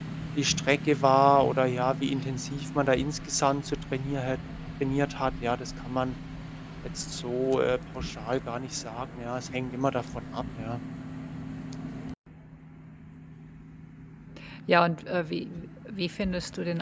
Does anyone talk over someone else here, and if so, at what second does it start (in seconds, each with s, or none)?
none